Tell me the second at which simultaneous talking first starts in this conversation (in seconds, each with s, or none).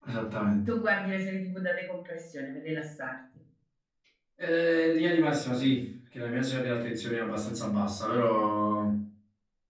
none